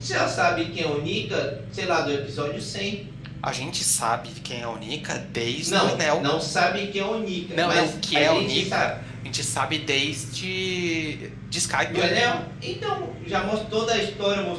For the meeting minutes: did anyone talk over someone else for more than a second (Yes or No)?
Yes